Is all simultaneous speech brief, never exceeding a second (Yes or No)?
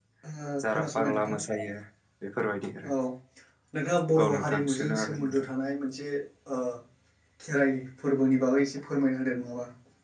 No